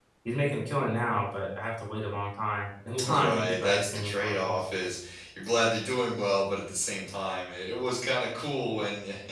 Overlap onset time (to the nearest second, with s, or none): 3 s